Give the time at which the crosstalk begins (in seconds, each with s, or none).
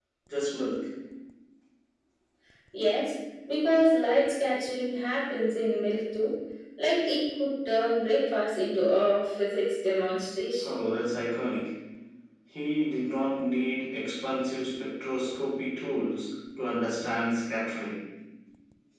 none